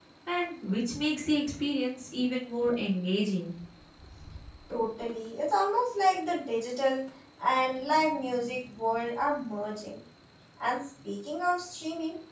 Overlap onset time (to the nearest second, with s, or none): none